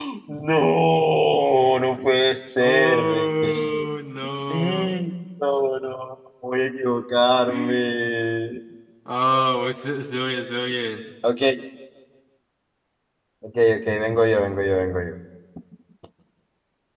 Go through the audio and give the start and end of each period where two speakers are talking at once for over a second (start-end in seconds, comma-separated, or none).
2.6-3.9